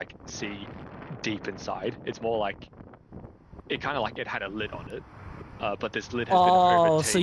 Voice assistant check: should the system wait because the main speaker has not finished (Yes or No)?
No